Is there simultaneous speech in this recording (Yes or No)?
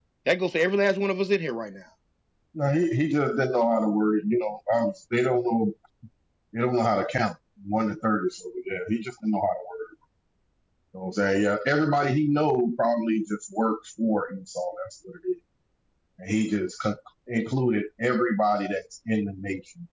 No